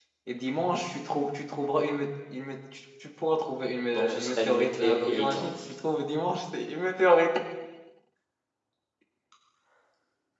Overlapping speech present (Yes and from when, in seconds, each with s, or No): Yes, from 3.9 s